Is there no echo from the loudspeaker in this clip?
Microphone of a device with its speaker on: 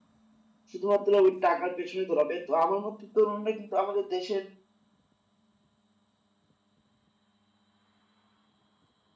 Yes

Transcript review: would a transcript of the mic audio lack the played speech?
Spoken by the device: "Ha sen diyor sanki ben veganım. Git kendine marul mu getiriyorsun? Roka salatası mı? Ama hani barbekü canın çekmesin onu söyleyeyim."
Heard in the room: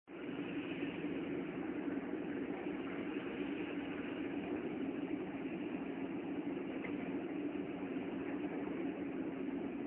Yes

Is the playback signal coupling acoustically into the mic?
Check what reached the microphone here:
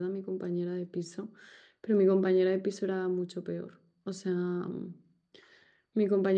No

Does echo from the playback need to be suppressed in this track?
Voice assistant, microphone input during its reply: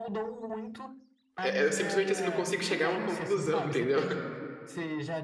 Yes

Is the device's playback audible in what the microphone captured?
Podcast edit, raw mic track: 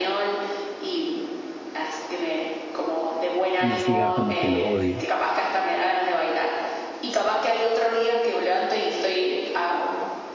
Yes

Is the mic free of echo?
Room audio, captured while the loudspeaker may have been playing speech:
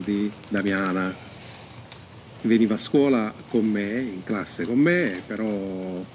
No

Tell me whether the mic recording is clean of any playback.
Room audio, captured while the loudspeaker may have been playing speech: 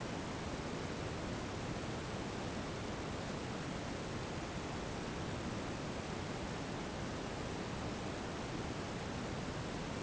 Yes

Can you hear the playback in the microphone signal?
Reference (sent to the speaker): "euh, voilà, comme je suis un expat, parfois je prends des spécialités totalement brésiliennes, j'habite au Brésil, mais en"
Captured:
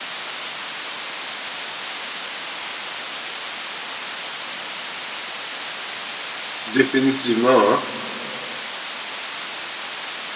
No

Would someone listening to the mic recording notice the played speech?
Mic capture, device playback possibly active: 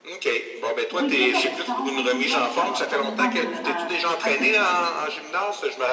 Yes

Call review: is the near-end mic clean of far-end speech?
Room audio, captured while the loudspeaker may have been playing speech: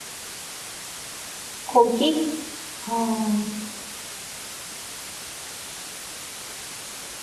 Yes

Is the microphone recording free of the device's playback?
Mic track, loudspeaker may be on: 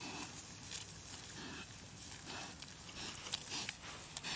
Yes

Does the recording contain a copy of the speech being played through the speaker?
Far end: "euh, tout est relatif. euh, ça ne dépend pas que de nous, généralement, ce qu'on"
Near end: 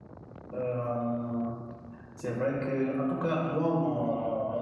No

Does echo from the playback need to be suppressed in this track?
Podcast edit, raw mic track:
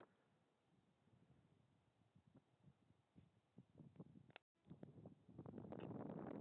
No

